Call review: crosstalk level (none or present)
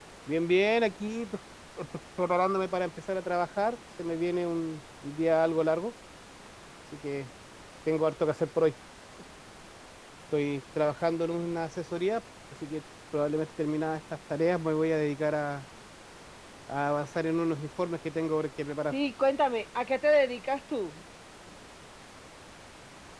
none